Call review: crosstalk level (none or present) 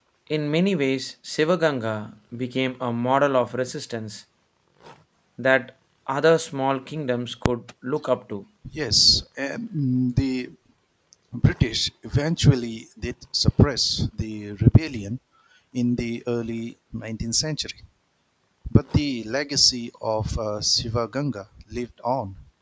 none